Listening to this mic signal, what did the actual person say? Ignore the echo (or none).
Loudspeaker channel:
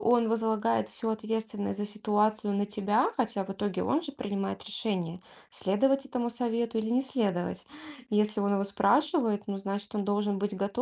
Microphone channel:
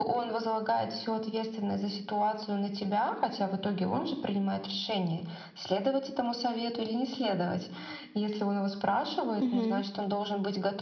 Мгм.